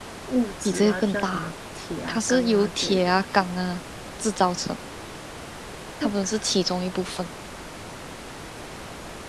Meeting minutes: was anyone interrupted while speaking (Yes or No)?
Yes